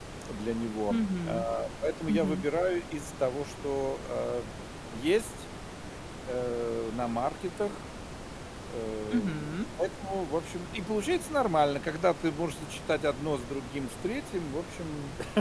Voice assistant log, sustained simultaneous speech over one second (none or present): none